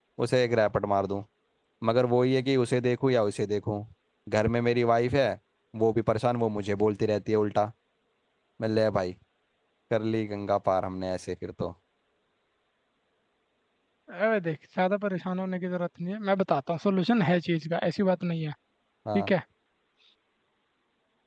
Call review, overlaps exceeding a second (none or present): none